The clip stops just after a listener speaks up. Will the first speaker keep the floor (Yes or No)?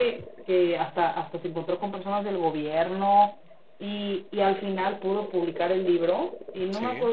Yes